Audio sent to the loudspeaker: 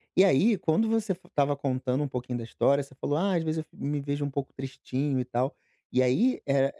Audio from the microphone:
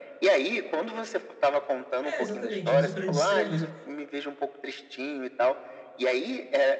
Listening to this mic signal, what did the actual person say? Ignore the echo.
É, exatamente, eu uso pra distrair.

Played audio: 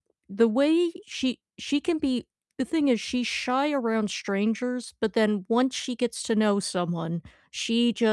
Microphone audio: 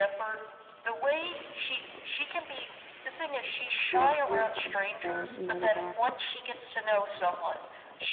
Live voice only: night, kinda got used to the you know, the guests,

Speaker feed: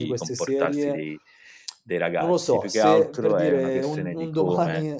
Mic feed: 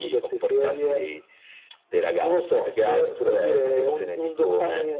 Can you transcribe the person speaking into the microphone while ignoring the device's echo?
none

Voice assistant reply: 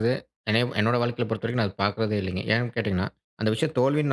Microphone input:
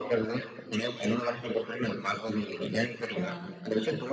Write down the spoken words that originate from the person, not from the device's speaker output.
ஆ

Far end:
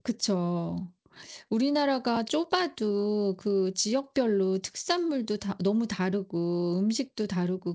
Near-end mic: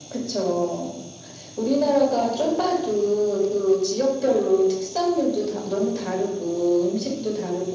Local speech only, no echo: none

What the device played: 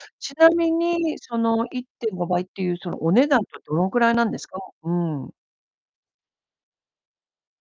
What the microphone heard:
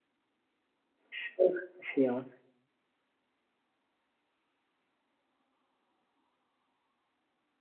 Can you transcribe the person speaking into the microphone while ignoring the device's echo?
そうなんですよ。

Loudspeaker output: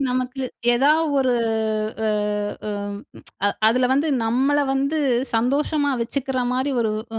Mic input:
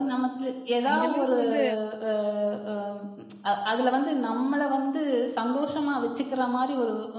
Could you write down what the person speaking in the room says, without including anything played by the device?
அந்த அளவுக்கு வந்து

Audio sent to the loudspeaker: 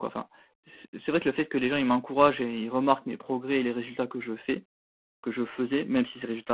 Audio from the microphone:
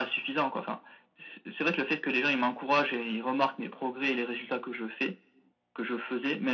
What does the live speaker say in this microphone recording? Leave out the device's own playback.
none

